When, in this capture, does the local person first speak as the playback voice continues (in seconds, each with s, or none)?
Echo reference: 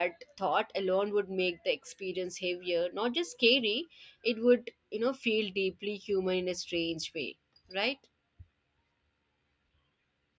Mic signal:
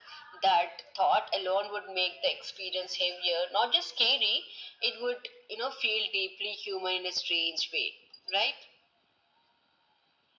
none